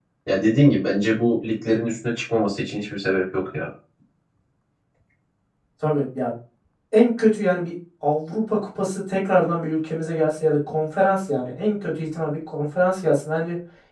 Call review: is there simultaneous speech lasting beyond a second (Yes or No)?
No